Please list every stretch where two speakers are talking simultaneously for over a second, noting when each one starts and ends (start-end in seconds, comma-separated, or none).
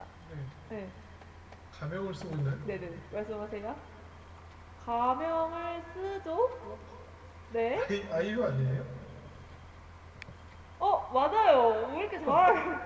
none